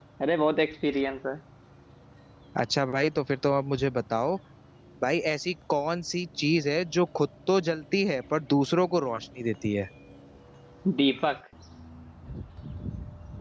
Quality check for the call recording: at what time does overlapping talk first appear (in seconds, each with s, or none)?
none